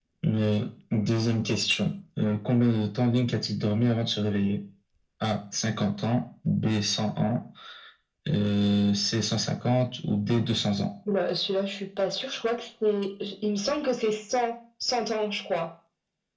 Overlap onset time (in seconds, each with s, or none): none